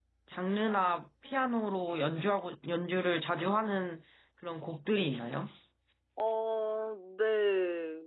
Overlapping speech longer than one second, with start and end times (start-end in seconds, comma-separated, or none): none